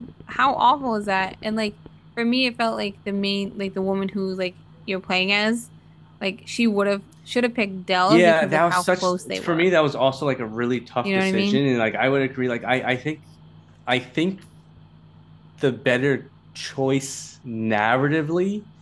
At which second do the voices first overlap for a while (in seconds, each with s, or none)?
8.1 s